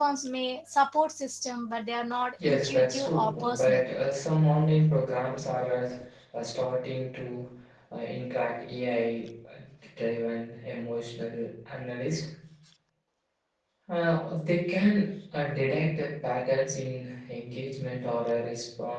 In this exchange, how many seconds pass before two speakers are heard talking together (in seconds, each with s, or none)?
2.4 s